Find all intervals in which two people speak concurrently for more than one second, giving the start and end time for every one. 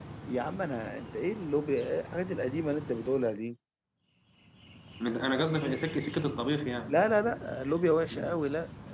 none

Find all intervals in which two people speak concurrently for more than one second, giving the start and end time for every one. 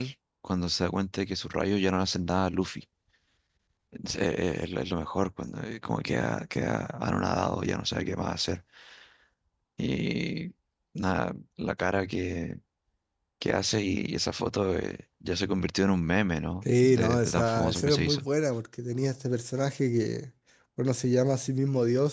16.8-18.2

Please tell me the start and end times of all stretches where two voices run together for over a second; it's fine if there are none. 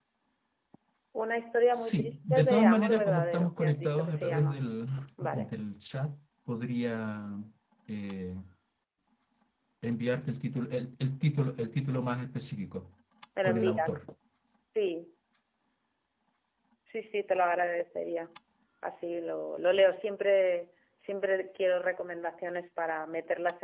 1.8-4.6

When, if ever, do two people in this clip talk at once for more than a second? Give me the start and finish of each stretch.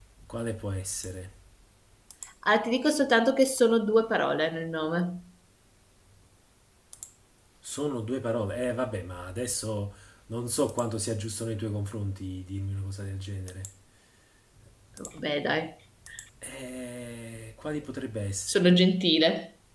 none

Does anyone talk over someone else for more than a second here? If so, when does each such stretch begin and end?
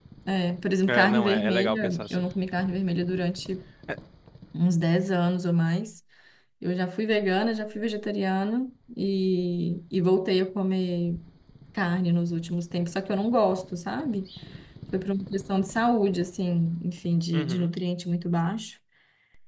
0.9-2.2

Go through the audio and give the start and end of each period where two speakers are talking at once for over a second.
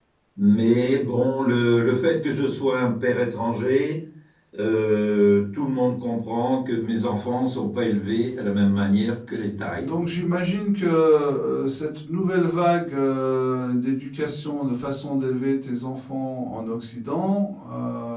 none

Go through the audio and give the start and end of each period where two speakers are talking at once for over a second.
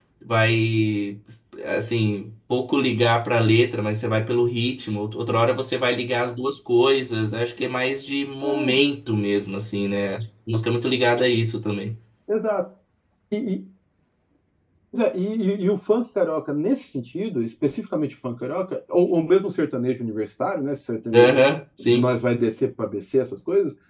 none

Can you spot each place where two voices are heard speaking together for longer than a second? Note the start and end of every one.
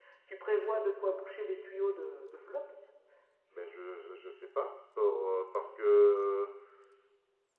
none

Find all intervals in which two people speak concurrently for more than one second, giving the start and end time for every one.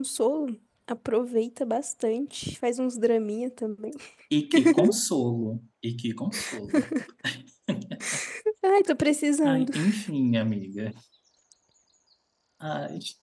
none

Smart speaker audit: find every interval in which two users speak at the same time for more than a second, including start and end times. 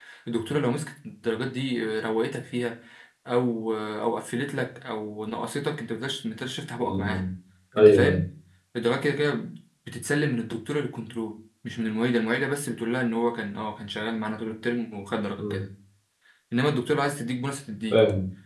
none

